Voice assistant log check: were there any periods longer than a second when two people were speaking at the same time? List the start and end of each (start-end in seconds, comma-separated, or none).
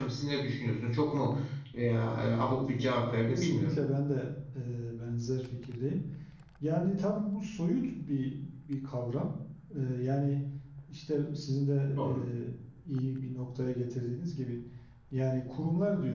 2.4-3.8